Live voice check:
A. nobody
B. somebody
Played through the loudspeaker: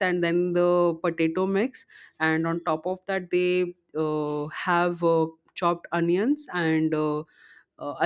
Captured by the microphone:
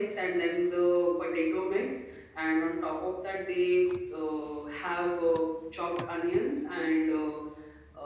A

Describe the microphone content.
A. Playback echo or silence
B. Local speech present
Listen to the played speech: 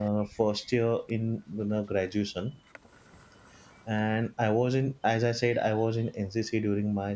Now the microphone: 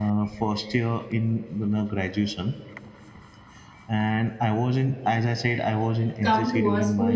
B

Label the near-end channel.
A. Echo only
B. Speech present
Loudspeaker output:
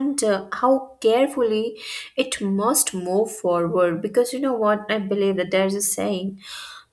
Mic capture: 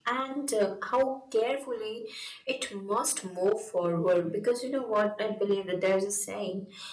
A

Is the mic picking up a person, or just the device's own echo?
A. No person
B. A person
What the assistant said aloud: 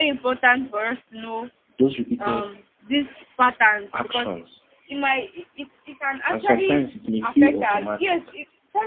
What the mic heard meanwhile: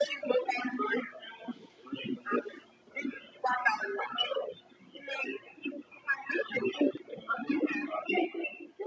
A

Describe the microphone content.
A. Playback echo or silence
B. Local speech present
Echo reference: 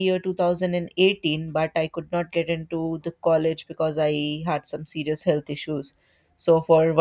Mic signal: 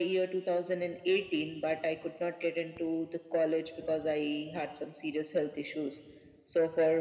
A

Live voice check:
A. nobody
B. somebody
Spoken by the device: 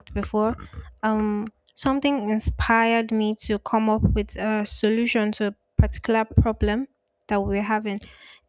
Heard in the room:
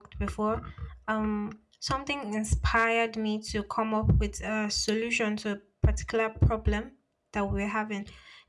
A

